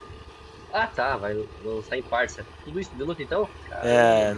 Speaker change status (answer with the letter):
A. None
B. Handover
B